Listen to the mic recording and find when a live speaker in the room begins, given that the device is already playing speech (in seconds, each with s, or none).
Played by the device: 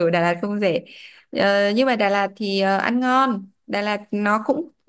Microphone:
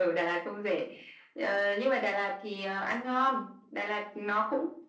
none